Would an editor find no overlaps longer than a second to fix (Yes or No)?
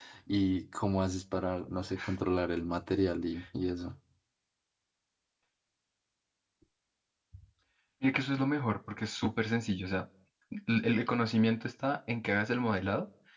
Yes